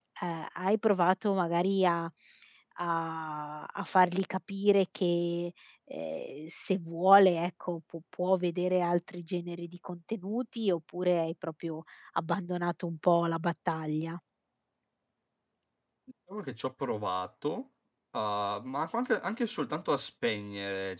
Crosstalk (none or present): none